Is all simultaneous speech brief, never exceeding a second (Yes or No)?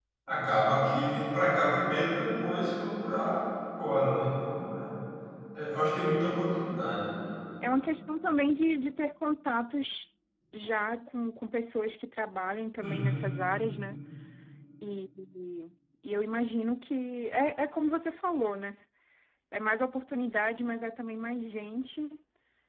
Yes